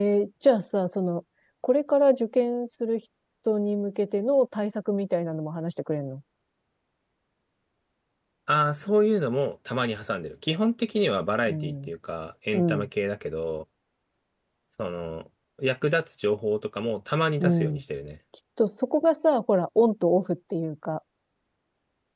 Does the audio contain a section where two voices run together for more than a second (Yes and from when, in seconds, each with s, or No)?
No